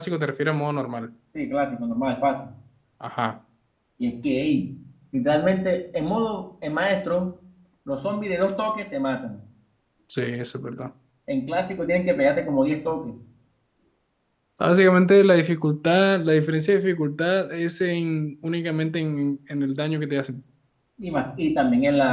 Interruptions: none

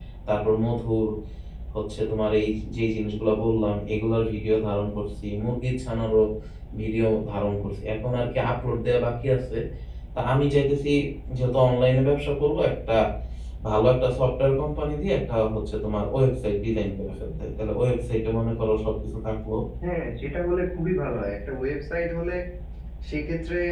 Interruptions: none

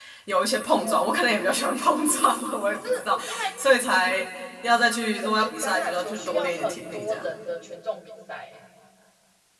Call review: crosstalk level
present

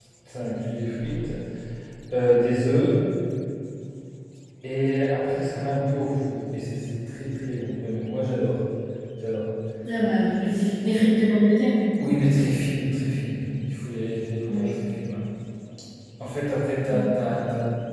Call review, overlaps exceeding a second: none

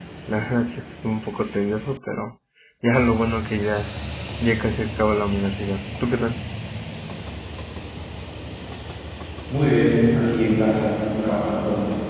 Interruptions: none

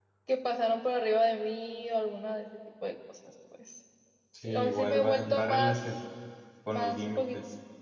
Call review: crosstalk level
present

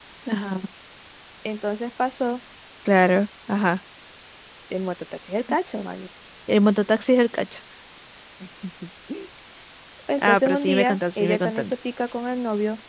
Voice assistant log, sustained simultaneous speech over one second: present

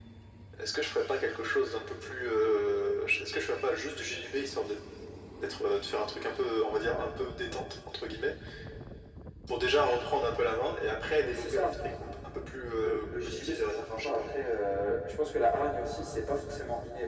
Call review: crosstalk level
present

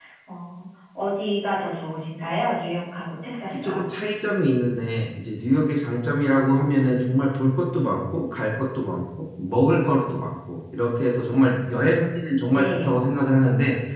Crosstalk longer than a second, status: none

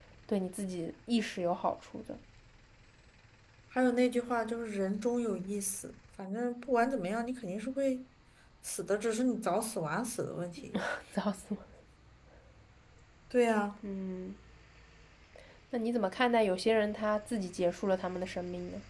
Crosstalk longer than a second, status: none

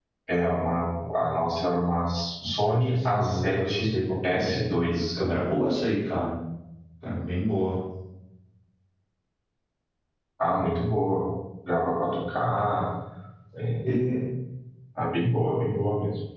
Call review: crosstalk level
present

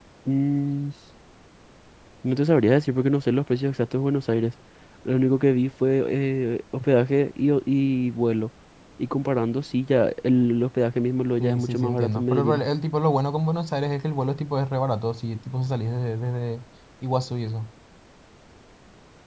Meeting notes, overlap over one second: present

